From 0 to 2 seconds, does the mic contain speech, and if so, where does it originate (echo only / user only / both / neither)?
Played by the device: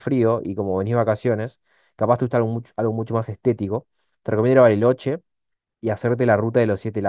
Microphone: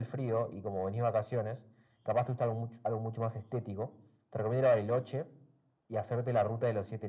echo only